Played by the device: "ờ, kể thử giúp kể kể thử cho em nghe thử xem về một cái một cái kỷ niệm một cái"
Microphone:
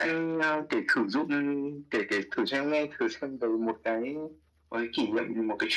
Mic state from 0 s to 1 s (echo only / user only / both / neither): echo only